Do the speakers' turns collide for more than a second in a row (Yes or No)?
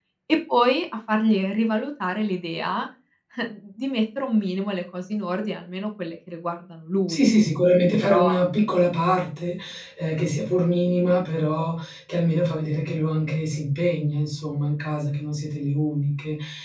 No